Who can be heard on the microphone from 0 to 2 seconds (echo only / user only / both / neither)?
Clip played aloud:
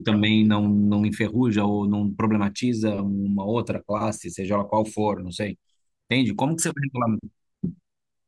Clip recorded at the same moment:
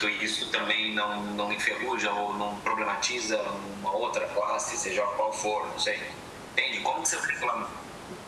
echo only